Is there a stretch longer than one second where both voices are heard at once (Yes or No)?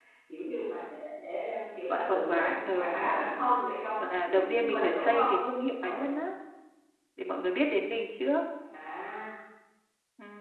Yes